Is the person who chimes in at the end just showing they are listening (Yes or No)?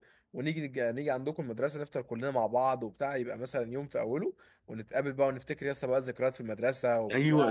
No